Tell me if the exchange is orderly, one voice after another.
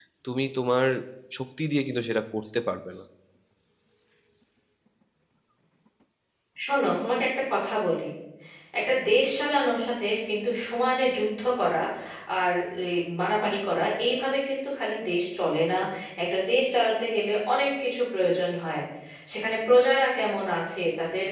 Yes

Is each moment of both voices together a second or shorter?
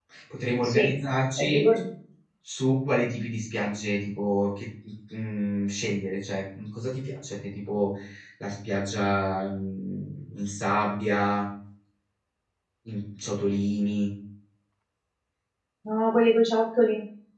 Yes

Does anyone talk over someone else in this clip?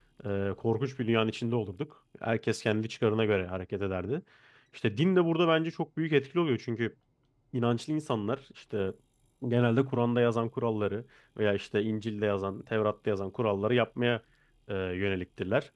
No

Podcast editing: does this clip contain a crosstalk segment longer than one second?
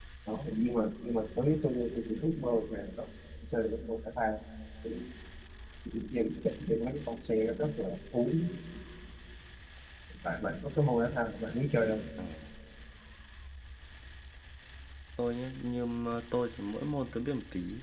No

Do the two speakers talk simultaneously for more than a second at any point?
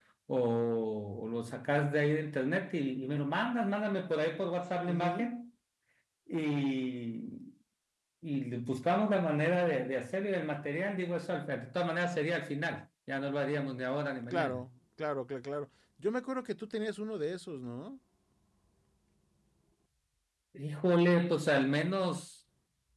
No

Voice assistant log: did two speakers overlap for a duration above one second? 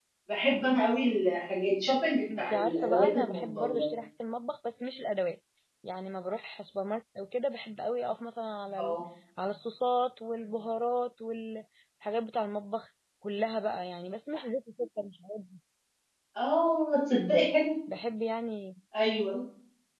Yes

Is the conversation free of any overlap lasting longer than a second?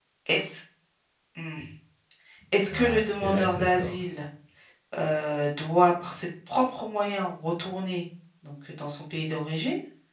No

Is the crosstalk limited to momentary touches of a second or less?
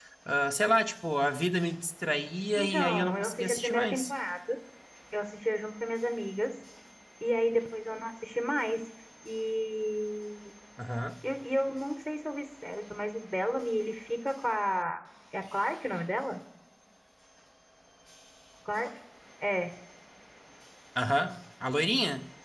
No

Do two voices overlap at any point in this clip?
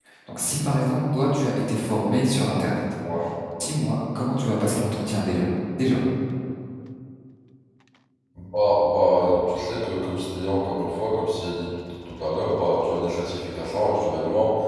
No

